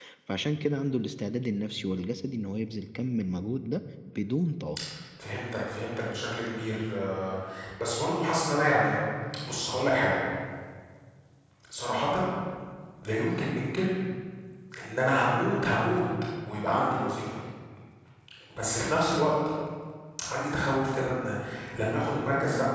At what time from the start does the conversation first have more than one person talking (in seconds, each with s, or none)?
none